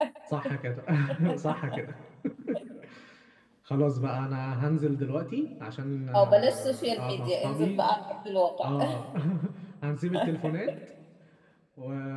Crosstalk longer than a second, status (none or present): present